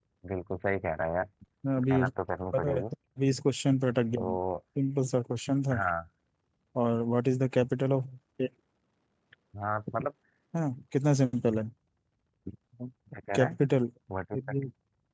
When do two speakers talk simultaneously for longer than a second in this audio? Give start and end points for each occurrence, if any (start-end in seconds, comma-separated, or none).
none